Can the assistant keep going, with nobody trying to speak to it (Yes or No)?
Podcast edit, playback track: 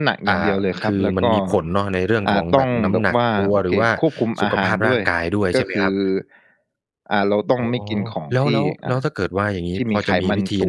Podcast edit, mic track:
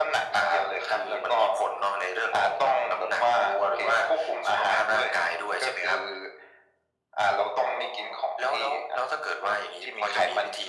Yes